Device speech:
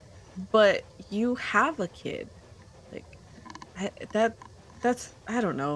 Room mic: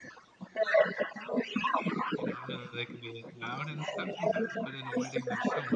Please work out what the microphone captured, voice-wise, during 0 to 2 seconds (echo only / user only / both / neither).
echo only